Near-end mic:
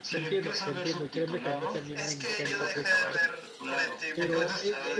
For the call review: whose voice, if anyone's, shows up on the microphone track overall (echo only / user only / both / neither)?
both